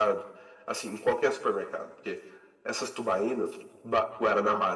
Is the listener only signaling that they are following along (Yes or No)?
Yes